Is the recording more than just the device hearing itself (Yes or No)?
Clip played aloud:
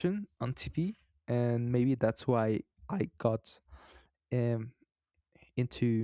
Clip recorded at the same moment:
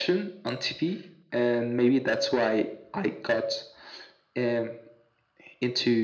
No